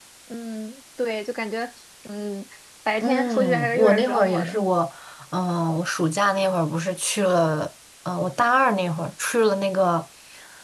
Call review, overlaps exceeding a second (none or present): present